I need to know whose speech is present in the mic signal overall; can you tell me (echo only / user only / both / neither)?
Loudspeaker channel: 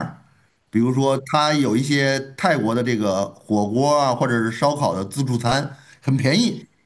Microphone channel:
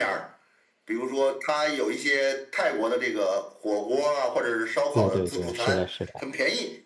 both